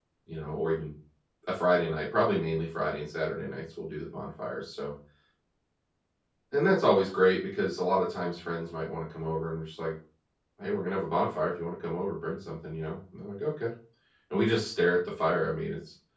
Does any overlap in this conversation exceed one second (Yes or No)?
No